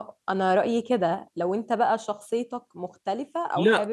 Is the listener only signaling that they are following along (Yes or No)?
No